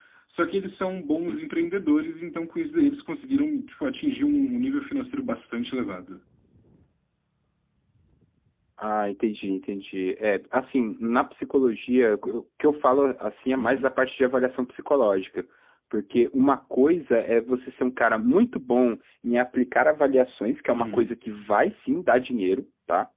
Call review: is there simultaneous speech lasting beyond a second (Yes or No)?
No